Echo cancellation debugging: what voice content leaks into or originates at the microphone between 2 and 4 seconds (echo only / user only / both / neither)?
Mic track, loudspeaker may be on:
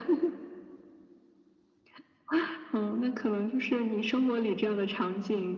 echo only